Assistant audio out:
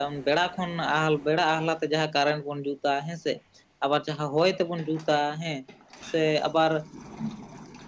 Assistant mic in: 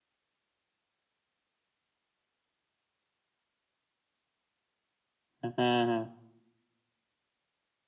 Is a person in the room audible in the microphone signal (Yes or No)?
Yes